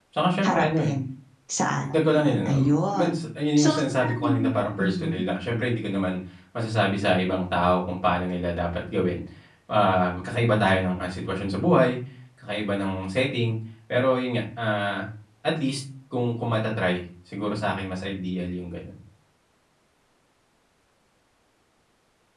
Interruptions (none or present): present